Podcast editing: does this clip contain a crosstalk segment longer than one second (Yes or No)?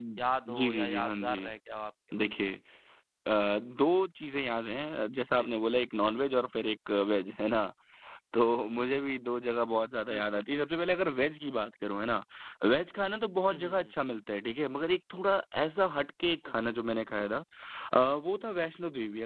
Yes